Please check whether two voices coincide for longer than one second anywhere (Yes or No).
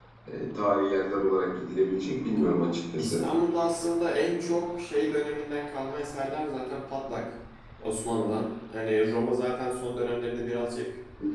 No